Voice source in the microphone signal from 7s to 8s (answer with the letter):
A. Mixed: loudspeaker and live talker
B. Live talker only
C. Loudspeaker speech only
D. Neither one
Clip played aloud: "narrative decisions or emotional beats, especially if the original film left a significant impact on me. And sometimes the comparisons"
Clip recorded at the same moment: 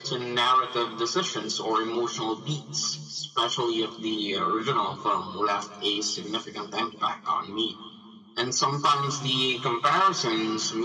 C